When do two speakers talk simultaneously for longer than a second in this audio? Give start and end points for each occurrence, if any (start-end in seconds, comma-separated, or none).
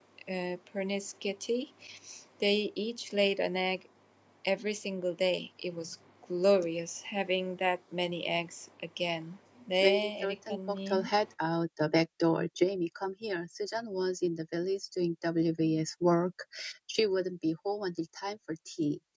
9.8-11.1